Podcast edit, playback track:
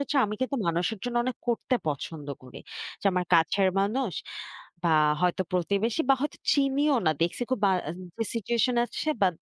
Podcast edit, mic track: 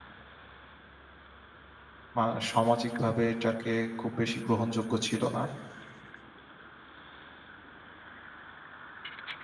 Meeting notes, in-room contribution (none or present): present